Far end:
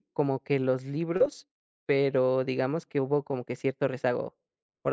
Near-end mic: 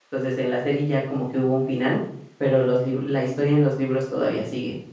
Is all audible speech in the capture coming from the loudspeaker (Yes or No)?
No